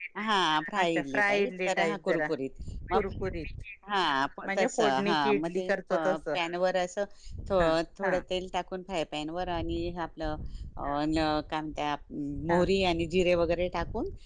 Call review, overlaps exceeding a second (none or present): present